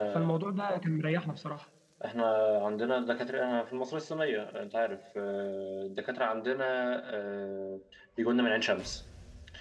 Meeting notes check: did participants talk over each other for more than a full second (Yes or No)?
No